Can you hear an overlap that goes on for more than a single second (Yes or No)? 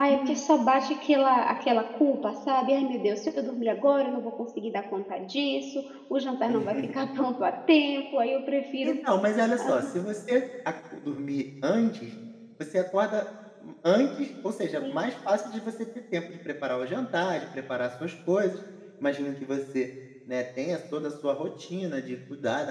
No